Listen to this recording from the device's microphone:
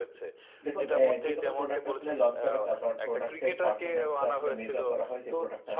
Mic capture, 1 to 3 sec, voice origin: both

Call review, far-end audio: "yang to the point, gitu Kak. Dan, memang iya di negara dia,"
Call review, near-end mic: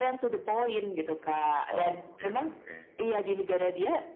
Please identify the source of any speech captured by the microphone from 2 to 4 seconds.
both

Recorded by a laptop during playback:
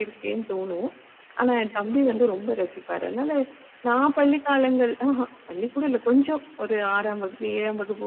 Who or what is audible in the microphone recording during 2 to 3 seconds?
both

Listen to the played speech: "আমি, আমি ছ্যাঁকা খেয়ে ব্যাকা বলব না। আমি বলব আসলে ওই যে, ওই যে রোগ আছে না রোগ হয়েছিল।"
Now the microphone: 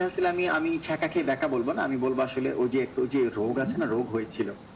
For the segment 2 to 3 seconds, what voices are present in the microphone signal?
echo only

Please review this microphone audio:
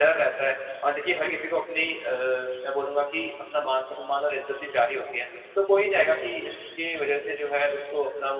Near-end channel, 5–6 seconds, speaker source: user only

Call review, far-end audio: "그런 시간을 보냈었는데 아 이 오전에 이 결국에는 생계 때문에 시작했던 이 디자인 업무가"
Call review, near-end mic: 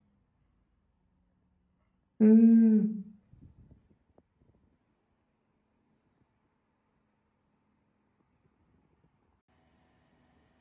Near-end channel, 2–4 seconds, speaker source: user only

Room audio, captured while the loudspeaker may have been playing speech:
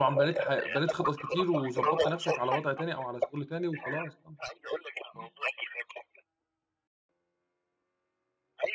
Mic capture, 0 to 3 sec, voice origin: both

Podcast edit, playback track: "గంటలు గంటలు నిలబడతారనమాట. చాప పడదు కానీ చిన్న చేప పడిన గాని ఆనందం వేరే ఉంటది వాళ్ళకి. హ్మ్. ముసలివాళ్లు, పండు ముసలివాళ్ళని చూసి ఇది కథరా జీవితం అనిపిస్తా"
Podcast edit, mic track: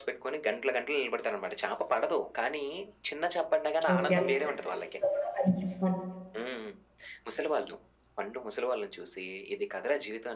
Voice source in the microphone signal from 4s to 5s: both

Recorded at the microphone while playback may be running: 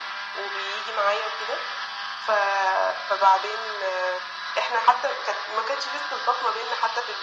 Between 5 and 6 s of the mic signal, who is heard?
echo only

